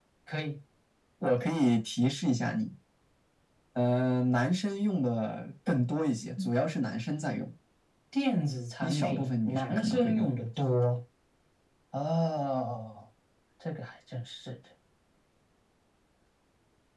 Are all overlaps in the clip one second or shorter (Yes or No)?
No